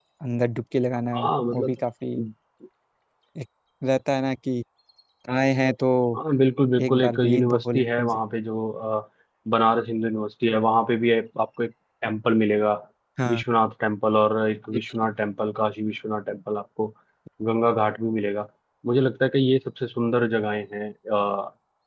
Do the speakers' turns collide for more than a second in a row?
Yes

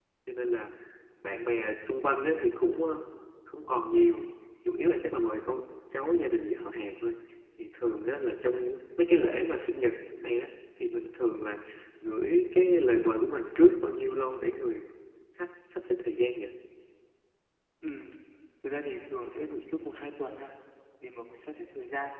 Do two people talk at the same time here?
No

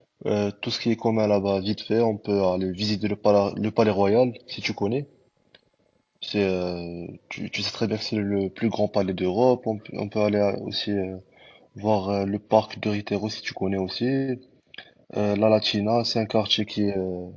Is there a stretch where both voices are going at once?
No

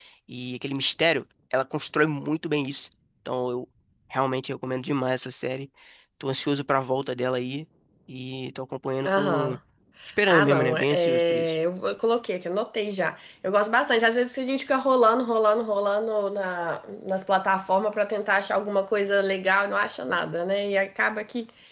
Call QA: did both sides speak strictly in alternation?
No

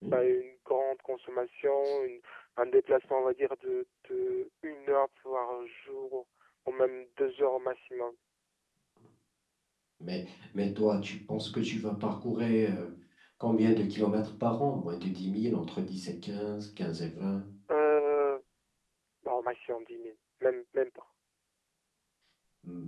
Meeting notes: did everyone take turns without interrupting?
Yes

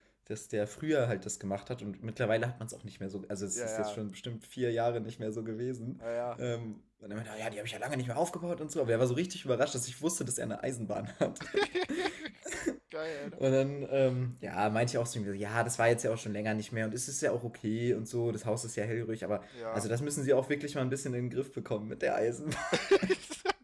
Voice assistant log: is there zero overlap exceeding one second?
Yes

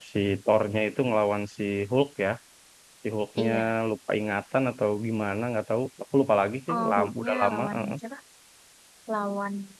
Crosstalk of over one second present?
Yes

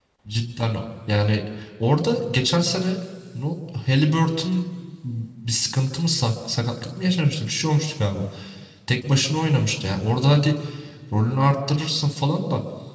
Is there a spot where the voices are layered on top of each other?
No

